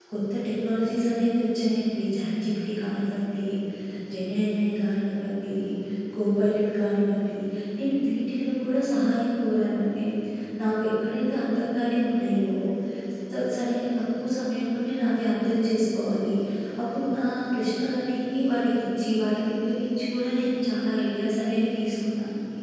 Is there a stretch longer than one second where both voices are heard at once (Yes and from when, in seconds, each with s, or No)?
No